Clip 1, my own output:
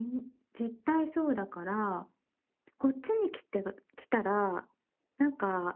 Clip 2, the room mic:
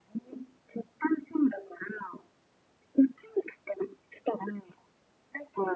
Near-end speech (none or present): none